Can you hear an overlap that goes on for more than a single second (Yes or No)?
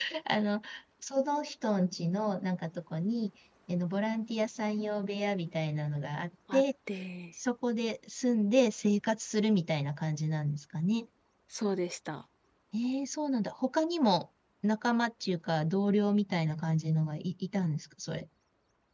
No